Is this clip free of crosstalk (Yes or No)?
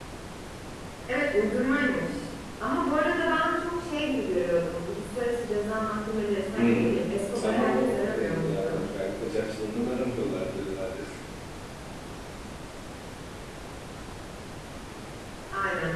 No